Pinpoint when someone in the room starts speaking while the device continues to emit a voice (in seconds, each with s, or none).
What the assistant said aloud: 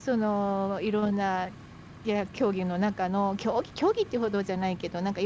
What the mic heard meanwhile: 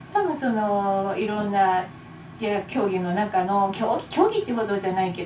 none